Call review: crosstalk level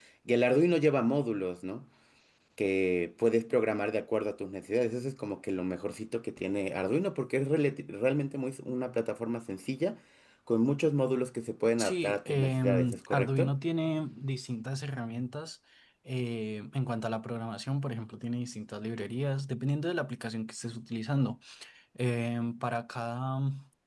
present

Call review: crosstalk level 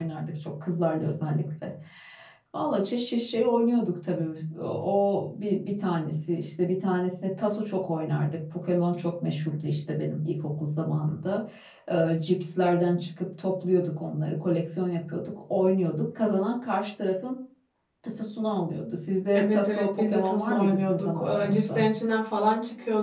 present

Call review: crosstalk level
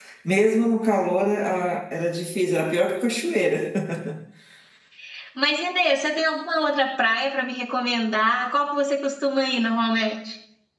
none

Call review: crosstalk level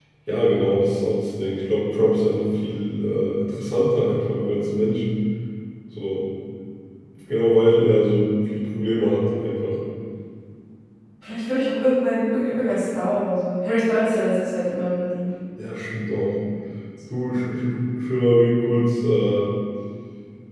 none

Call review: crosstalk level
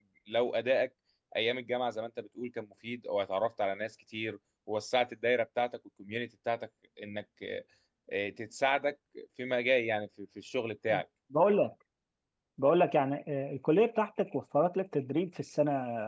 none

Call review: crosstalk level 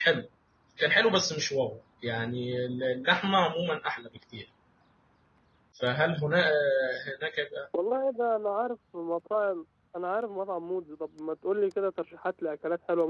none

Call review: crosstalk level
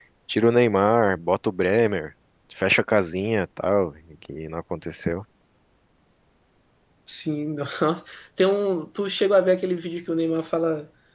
none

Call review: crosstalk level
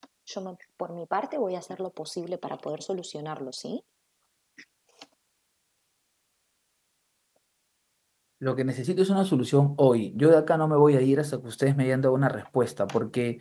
none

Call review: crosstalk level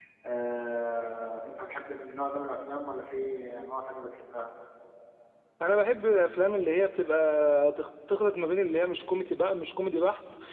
none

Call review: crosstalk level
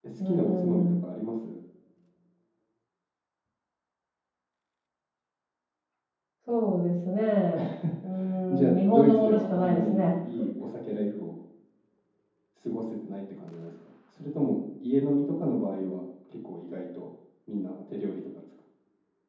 present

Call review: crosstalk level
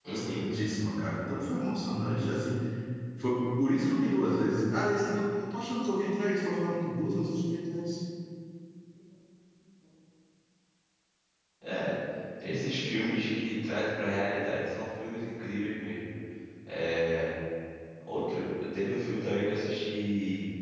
none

